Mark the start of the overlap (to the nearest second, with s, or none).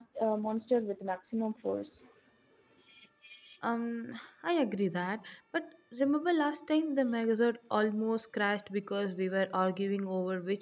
none